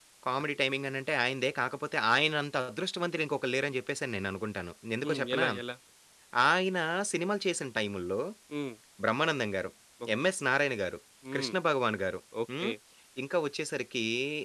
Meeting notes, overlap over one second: none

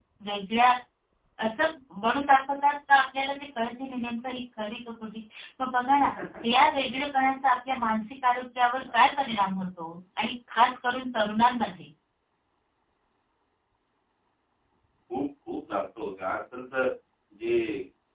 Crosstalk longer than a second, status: none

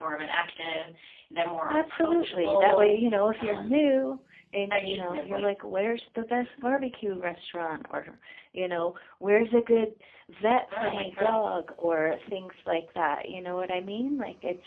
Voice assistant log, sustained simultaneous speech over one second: present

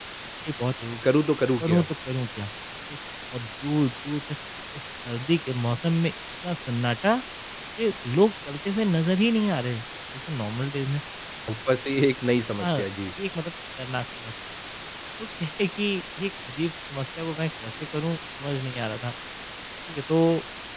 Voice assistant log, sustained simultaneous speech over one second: none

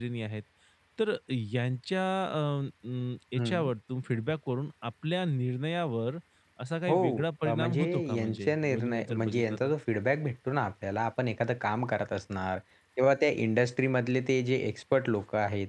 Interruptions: present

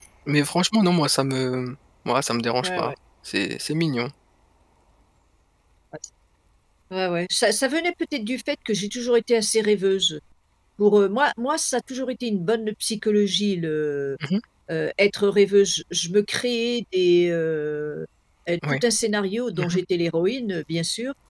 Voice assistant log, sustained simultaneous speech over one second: none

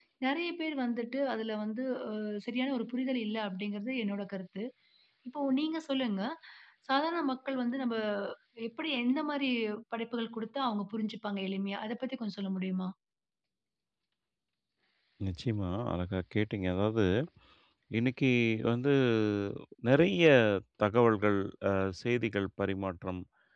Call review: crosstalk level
none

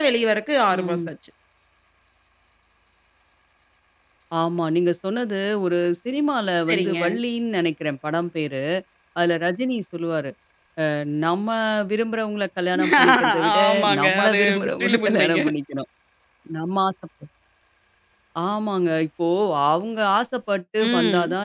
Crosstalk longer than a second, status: present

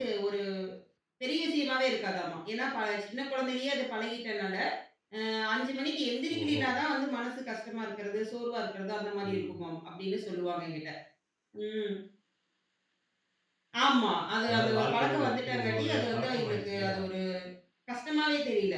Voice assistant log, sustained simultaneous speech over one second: present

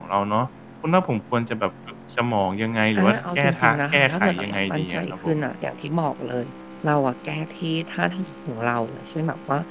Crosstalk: present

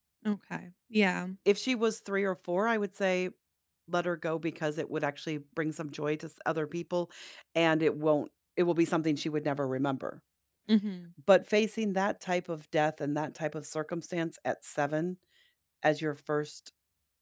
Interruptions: none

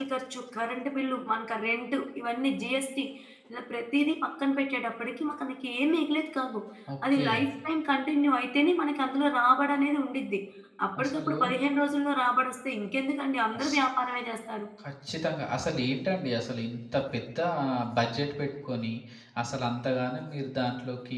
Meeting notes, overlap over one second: none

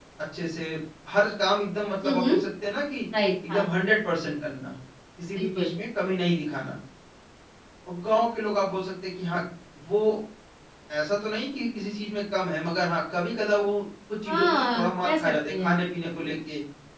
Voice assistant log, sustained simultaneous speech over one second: present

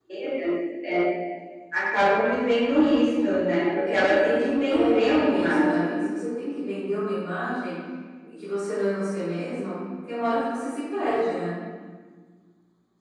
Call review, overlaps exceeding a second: present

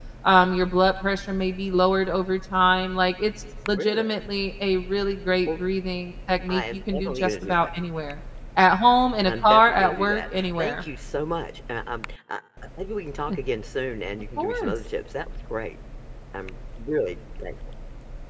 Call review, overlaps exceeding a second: present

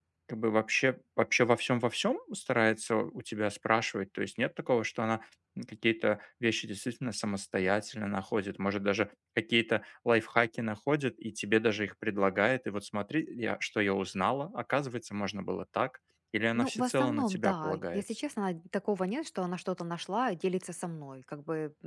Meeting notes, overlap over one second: present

